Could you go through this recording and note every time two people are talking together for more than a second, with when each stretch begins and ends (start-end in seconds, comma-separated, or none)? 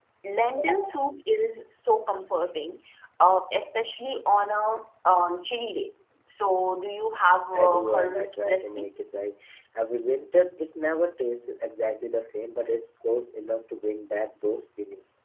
7.5-8.9